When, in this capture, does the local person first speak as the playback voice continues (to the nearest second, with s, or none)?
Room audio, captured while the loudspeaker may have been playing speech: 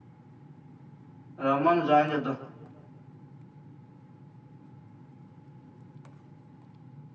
1 s